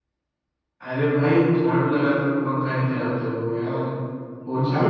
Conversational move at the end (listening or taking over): taking over